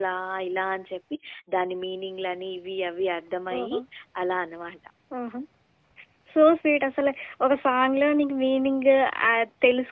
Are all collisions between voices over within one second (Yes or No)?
Yes